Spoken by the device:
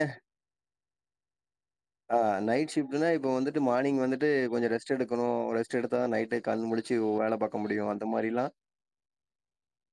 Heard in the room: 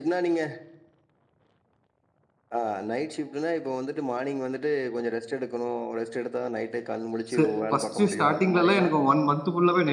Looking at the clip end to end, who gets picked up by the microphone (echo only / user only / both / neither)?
both